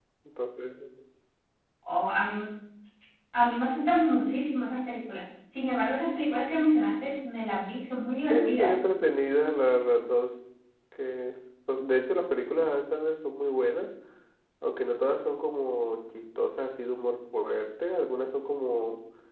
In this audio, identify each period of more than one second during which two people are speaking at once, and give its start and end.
none

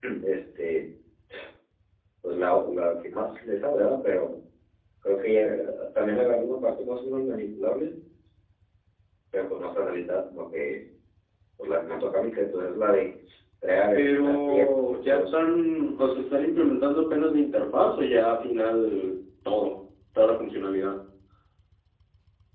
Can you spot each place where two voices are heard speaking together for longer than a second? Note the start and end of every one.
13.9-15.4

